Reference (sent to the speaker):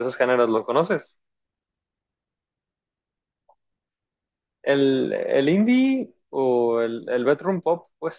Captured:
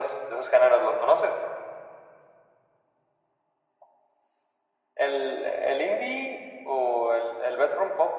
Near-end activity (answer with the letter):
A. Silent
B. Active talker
A